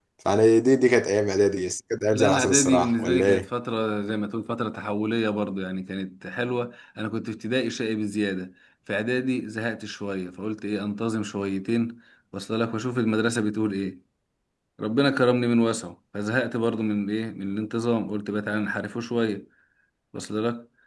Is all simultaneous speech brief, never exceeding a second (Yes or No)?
No